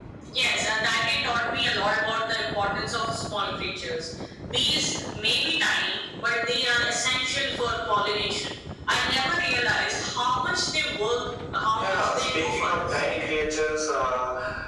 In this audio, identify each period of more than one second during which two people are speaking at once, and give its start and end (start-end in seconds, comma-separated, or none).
11.8-13.0